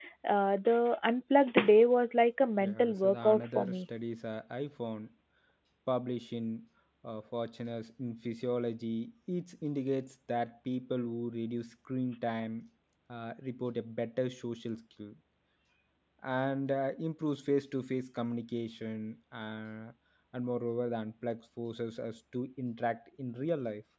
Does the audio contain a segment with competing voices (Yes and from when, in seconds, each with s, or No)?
Yes, from 2.6 s